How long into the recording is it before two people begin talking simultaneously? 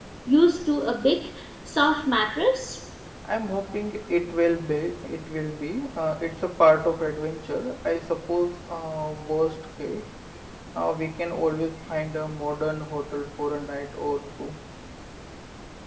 none

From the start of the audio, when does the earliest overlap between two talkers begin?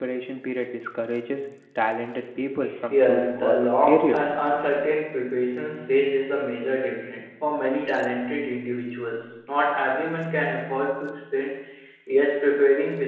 2.9 s

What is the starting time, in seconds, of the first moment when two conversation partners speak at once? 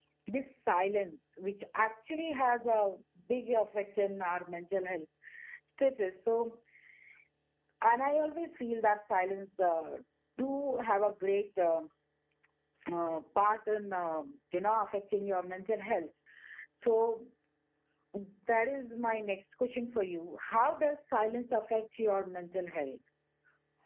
none

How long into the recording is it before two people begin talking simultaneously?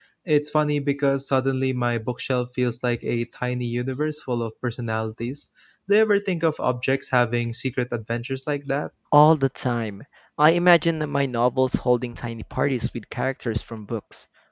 none

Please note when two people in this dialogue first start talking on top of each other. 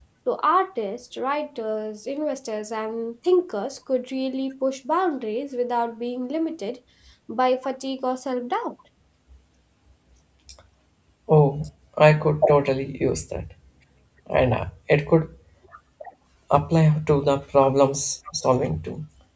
none

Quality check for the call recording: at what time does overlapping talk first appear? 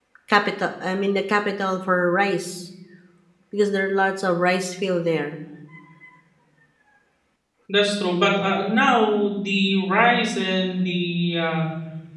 none

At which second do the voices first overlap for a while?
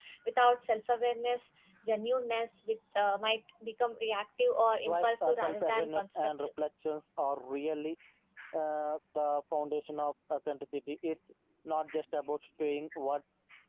4.8 s

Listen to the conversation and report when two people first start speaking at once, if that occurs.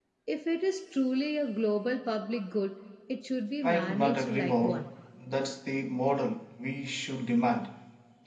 3.6 s

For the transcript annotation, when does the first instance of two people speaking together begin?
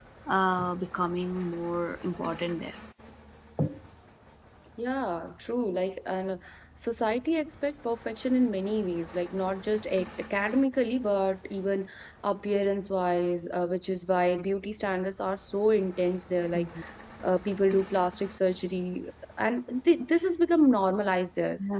none

